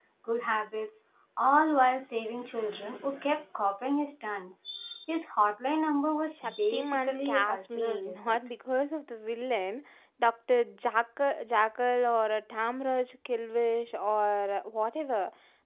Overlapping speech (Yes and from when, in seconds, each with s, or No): Yes, from 6.3 s